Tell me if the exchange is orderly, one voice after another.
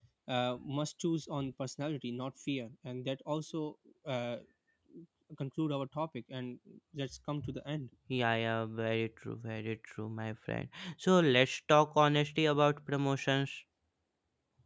Yes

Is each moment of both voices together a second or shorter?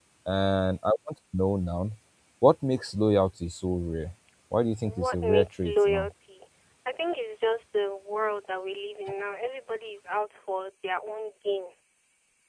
No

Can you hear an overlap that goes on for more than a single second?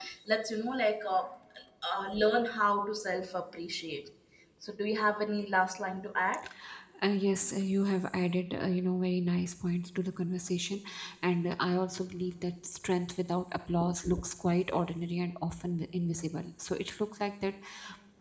No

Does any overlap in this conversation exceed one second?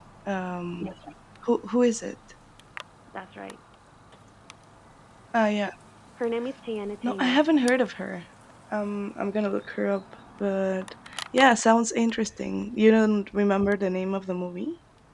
No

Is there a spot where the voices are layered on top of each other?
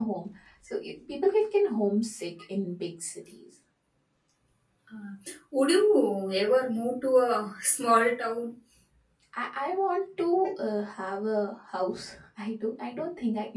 No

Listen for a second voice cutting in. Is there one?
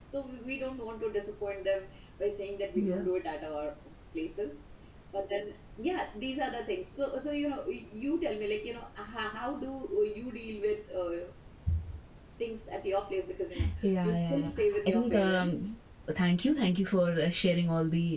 Yes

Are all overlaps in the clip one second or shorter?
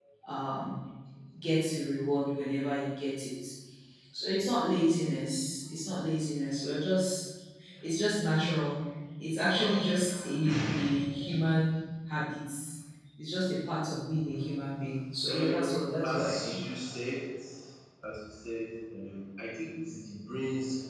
No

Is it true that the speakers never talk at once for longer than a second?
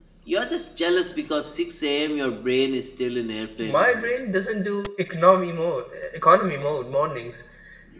Yes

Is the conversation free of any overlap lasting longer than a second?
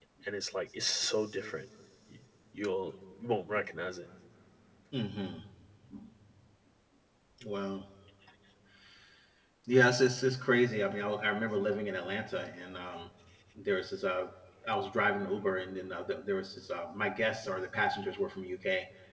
Yes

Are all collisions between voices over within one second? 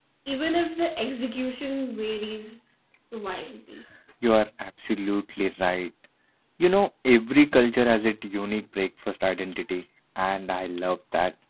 Yes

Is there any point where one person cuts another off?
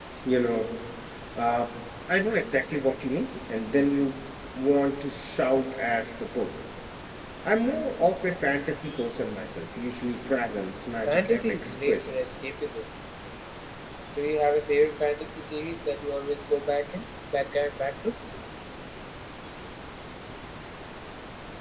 Yes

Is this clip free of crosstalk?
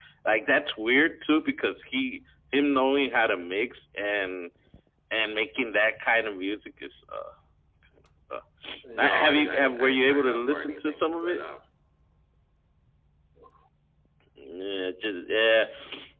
No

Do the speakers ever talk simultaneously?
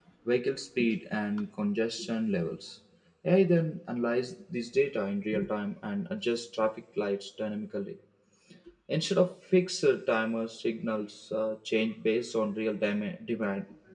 No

